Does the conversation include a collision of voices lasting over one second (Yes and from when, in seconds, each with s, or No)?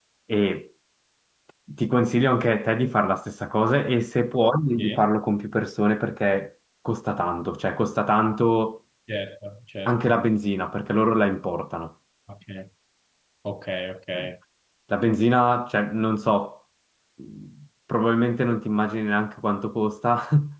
No